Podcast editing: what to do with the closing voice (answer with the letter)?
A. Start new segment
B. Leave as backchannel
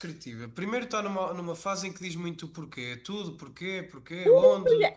A